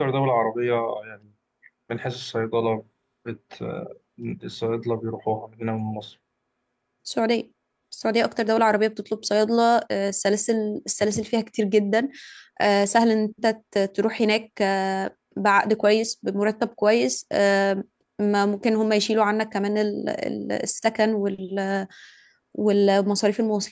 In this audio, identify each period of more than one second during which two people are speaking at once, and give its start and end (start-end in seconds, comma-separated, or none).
none